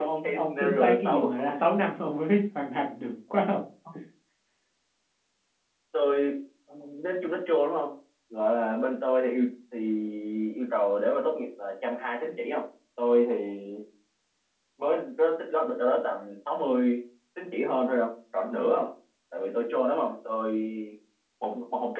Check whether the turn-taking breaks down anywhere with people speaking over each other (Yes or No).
Yes